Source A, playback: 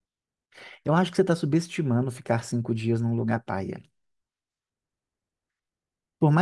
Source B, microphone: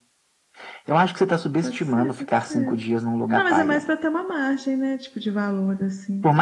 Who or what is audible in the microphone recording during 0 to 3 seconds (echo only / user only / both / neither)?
both